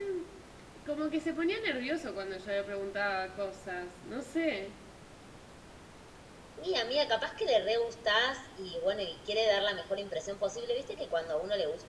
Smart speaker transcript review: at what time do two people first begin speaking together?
none

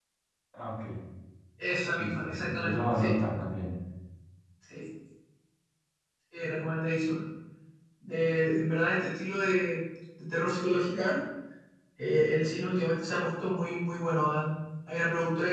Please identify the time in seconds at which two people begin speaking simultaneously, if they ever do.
1.9 s

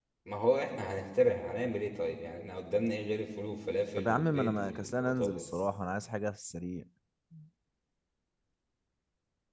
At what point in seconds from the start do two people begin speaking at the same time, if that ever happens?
4.0 s

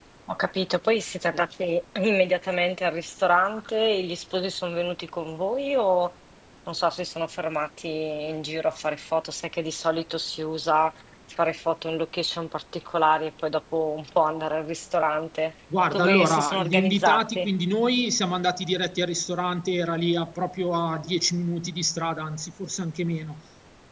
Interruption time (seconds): 15.9 s

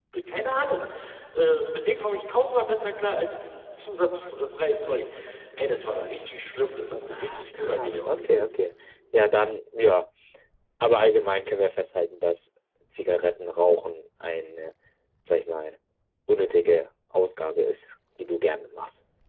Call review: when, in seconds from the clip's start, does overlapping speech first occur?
7.1 s

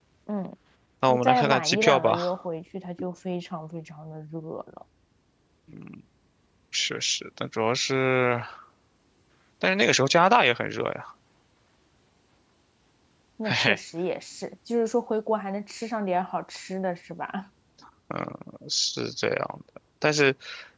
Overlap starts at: 1.1 s

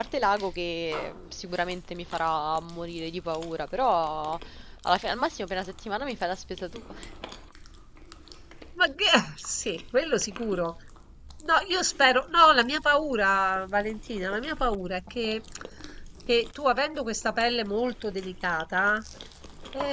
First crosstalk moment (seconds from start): none

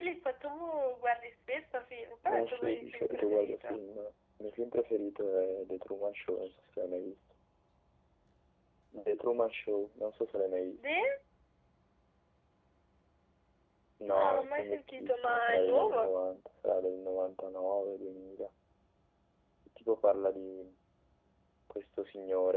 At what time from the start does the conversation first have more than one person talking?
2.3 s

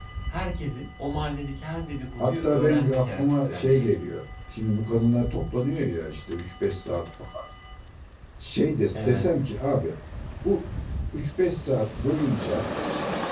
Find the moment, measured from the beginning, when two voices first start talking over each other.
2.2 s

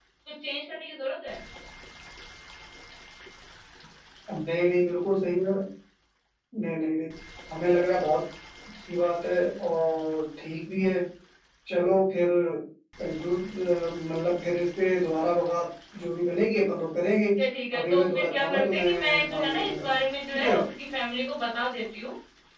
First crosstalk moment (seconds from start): 17.8 s

